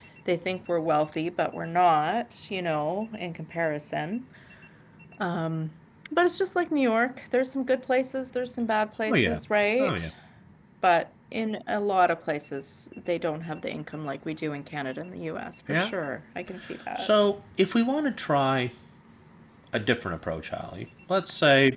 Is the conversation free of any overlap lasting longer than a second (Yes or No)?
Yes